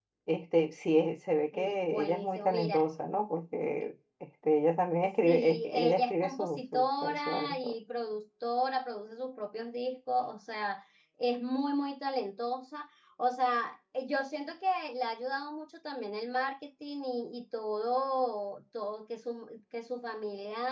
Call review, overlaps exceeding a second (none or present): present